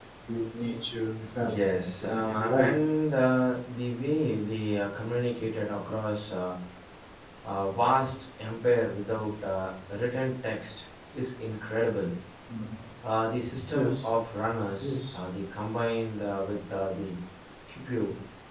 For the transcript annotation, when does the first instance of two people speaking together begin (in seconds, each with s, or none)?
1.4 s